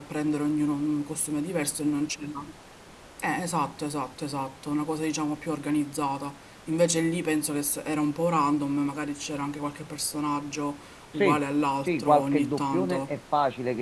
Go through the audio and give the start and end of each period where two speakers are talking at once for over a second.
11.9-13.1

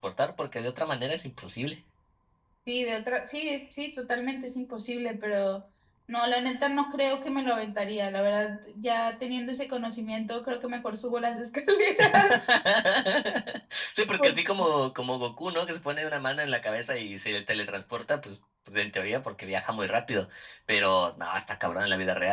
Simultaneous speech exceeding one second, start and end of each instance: none

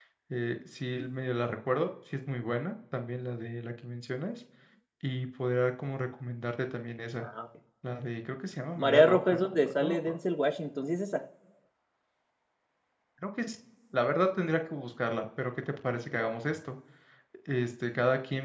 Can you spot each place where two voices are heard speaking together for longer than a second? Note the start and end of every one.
8.8-10.2

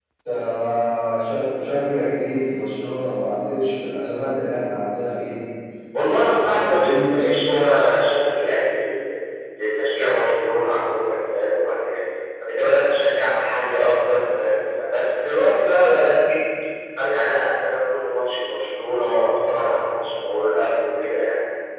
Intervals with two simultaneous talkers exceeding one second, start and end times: 6.0-7.3

